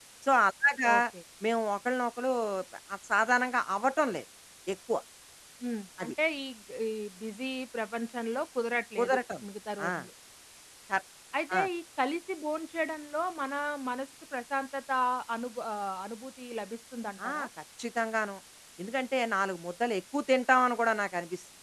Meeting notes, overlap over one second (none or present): none